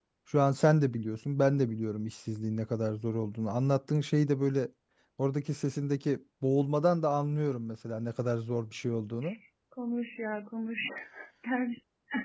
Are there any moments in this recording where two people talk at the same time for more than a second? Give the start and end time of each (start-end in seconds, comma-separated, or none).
none